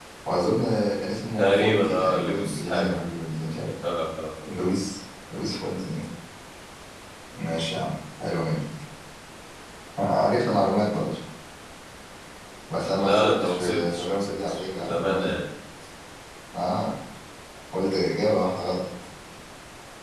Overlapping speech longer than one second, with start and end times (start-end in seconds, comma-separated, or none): 1.4-3.0, 13.0-15.3